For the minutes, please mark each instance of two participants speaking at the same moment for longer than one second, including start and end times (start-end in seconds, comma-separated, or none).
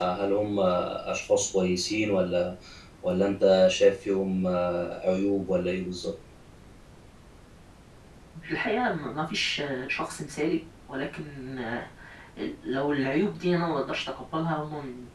none